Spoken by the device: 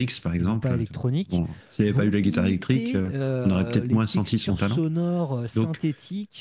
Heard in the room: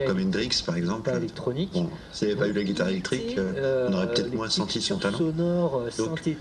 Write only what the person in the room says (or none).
none